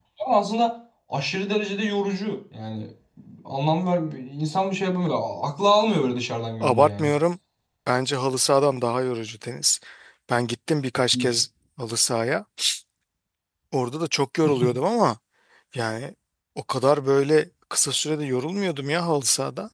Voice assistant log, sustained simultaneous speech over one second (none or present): none